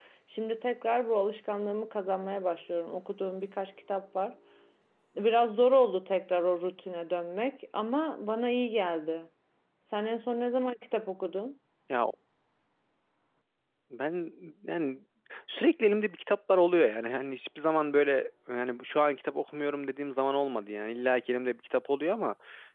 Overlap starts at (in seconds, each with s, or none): none